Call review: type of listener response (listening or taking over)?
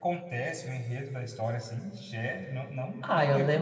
taking over